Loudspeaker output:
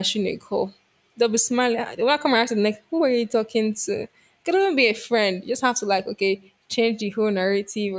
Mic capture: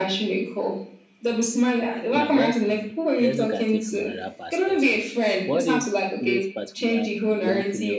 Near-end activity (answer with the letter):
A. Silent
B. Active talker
B